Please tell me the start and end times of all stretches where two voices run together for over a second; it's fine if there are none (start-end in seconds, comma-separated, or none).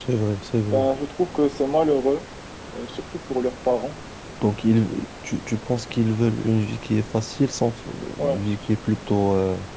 none